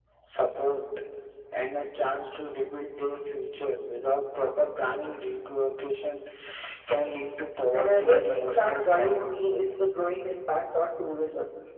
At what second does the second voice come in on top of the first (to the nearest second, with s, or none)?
8 s